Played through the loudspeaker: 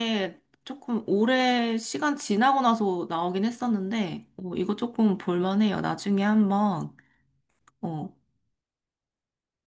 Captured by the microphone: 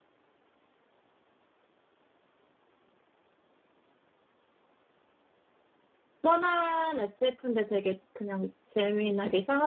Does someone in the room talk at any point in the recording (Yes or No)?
Yes